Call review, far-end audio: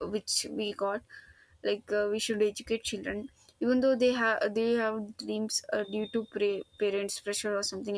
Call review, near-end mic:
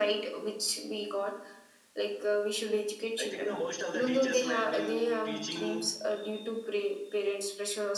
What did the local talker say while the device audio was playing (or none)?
I think the most of the teachers like been teaching.